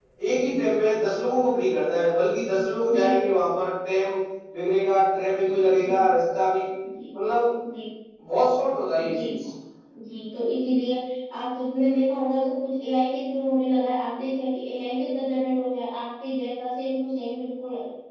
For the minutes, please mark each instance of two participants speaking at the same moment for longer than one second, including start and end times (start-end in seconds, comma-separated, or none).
none